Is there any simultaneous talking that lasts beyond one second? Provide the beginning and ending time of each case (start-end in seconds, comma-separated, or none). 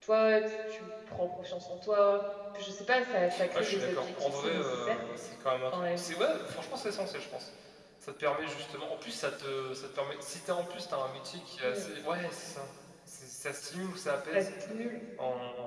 3.5-5.0